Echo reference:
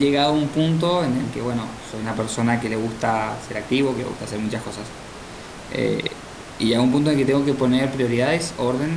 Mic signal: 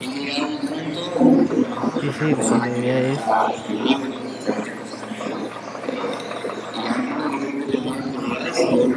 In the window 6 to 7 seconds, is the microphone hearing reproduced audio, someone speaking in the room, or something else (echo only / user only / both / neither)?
echo only